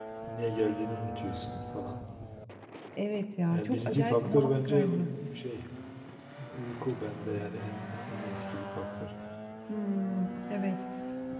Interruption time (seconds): 4 s

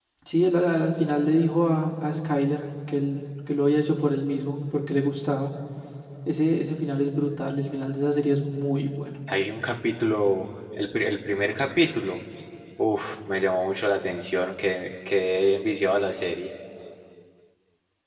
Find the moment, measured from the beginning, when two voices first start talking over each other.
none

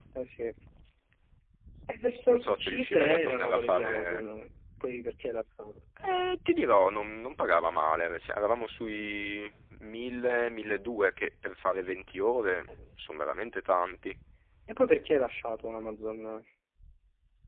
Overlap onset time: 2 s

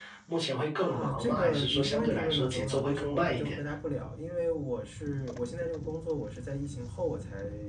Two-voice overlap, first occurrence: 1 s

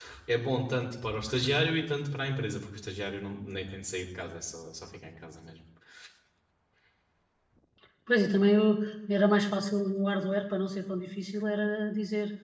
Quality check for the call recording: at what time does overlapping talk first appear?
none

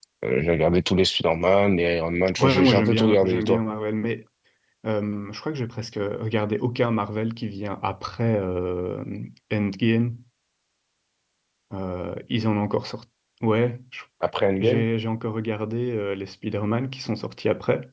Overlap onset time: 2 s

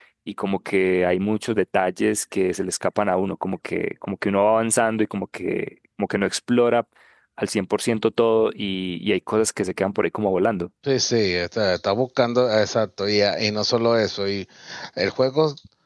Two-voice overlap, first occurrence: none

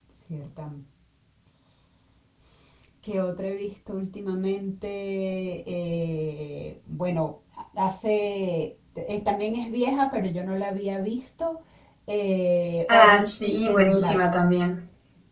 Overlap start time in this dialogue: 13 s

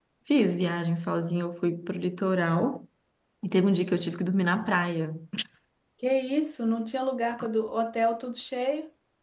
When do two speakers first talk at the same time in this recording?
none

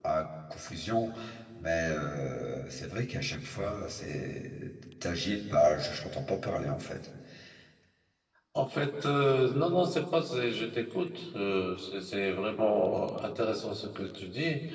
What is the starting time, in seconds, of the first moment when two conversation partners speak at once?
none

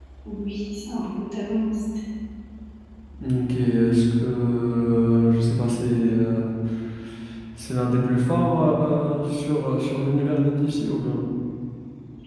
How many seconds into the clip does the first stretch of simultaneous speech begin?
none

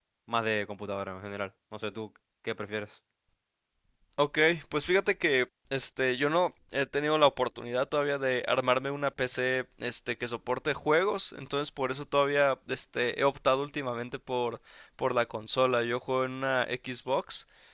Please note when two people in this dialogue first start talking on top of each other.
none

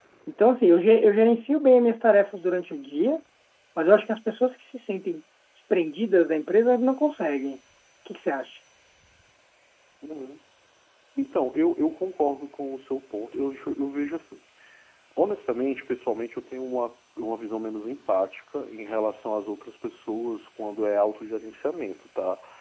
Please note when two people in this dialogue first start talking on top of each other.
none

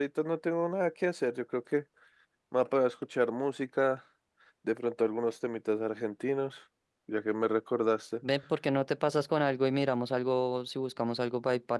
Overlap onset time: none

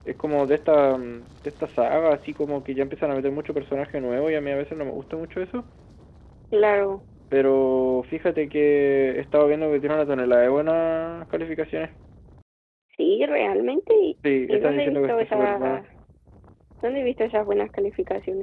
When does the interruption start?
14 s

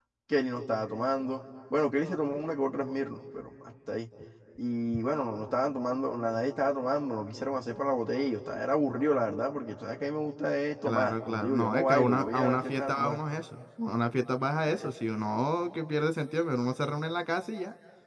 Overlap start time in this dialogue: 11 s

